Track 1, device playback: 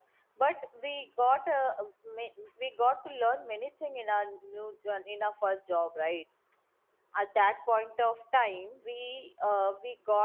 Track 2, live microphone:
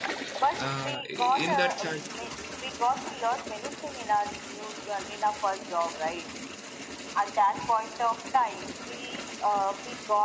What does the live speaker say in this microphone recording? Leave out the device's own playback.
Uh, in that charge,

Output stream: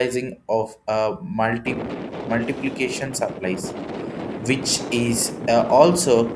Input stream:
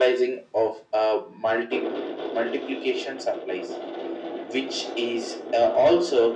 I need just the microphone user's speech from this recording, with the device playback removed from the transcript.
none

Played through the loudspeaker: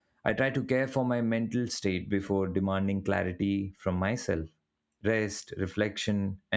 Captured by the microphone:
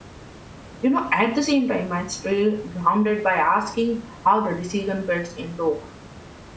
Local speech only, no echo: You know, at the same time, I stay grounded by asking how the decision fits into

